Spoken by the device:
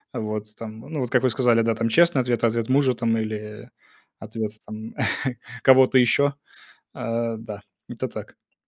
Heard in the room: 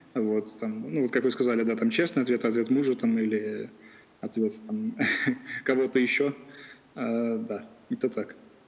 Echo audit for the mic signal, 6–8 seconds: echo only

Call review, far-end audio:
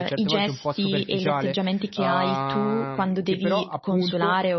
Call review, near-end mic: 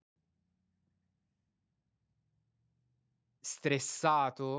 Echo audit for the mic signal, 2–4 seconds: user only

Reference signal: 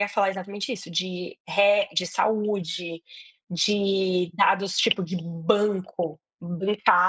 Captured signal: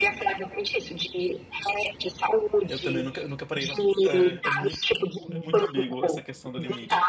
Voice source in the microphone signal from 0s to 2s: echo only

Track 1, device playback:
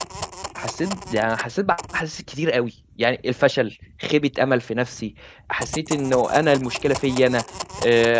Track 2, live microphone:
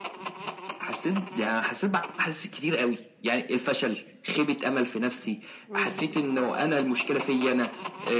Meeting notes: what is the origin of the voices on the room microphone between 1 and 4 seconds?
echo only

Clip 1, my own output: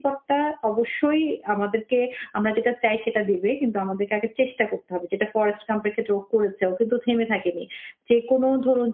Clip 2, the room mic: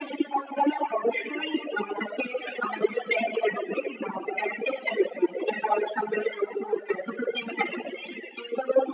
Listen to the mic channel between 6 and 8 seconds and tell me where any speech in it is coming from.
echo only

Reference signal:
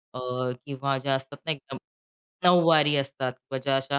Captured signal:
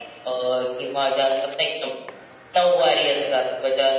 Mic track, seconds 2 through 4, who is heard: echo only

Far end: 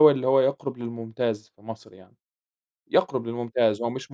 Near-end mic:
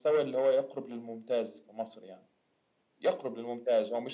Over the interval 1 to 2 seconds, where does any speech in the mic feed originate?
echo only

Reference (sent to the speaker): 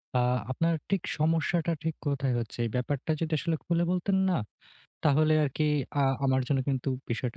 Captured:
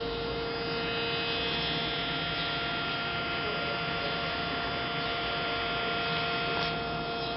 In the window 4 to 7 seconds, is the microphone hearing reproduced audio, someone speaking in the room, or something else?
neither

